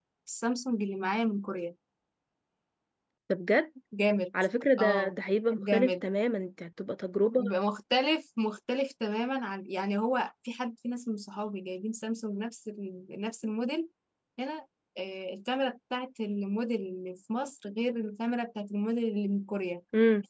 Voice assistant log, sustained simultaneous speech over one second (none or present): none